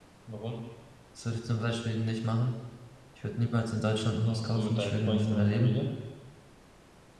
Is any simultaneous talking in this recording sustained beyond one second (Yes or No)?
Yes